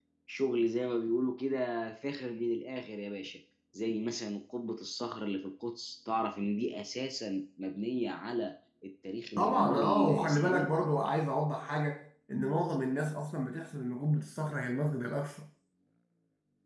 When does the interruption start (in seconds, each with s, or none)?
9.4 s